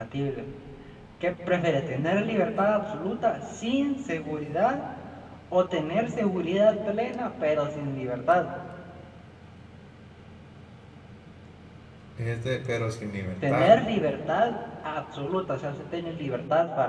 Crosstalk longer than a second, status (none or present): none